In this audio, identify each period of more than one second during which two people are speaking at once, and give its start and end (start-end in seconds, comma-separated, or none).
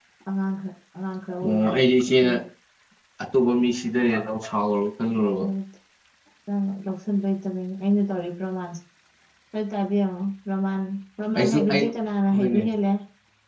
none